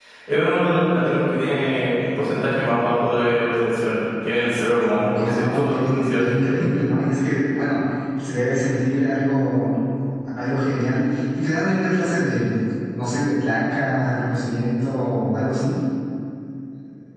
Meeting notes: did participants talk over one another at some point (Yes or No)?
Yes